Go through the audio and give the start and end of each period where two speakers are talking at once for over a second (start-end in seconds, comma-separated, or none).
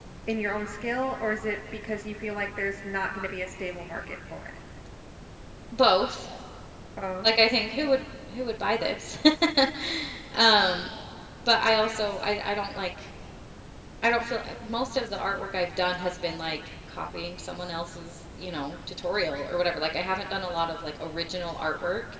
none